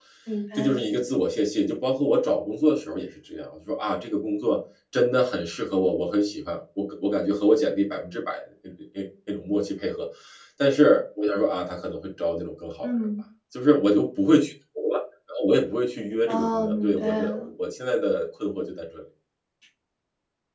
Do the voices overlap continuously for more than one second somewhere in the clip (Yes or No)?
Yes